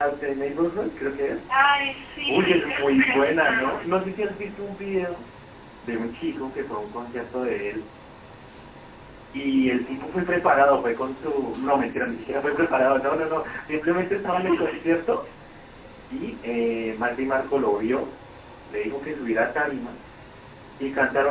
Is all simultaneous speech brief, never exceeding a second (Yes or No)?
No